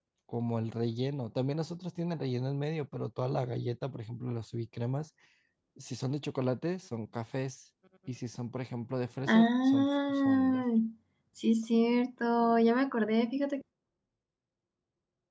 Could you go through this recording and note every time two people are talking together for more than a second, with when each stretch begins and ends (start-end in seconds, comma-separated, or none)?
9.3-10.6